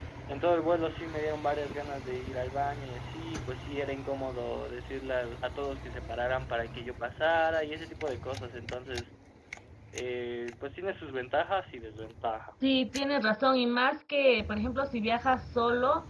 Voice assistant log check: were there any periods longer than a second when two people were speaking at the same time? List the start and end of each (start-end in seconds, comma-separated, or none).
none